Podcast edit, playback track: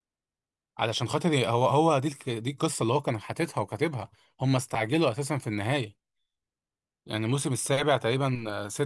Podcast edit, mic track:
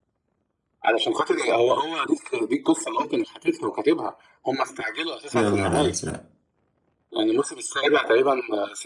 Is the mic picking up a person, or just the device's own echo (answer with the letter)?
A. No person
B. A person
B